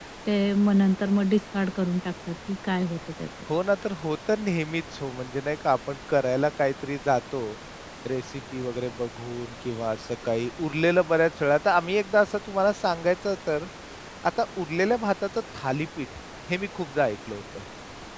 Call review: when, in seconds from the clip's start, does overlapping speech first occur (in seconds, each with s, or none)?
none